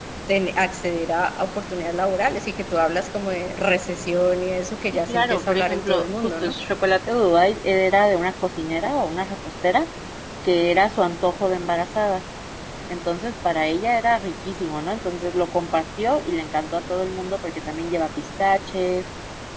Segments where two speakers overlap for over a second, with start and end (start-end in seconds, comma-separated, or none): 5.1-6.5